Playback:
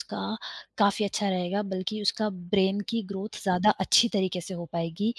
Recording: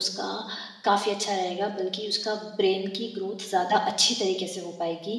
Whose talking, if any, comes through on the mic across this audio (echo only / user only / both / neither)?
echo only